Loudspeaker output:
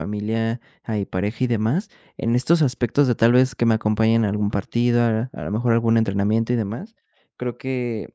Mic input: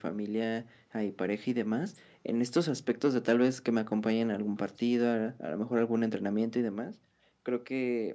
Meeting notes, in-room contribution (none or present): none